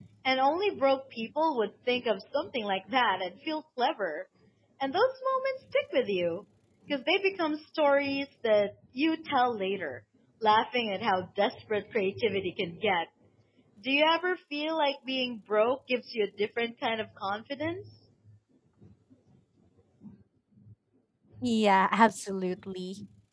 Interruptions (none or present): none